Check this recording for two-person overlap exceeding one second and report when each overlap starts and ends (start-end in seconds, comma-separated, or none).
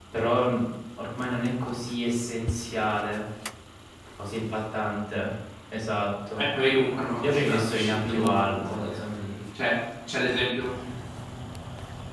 7.2-9.0